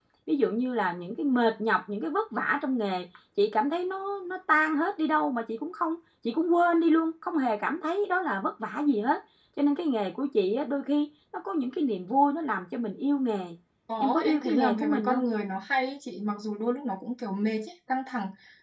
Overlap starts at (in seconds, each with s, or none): 14.0 s